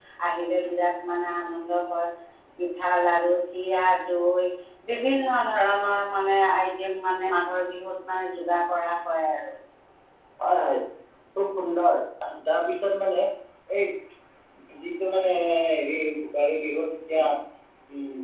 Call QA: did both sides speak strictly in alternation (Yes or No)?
Yes